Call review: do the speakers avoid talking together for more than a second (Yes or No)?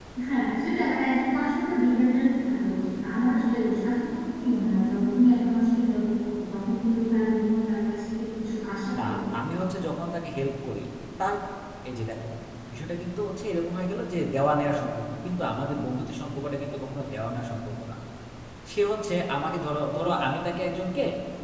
Yes